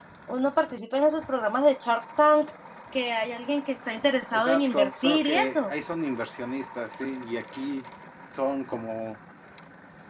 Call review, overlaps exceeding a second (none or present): present